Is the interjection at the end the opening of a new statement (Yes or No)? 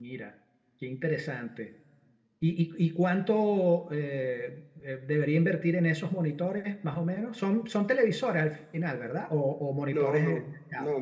Yes